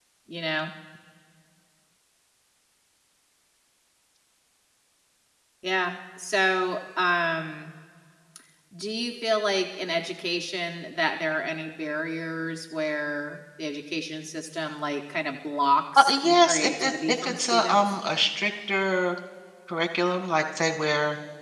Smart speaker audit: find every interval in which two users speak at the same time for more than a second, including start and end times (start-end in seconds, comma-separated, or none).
16.0-17.8